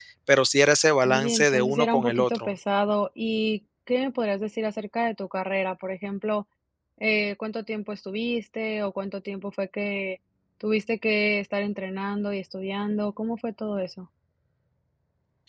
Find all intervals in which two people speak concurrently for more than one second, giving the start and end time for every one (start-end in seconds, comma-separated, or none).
1.0-2.5